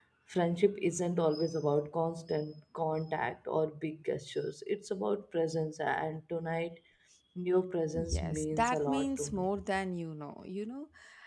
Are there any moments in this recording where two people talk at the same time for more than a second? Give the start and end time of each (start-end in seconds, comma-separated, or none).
7.9-9.5